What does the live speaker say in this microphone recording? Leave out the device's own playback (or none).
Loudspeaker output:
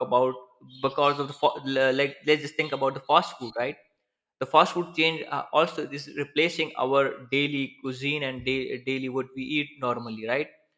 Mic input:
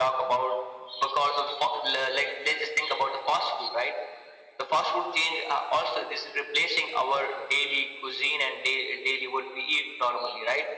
none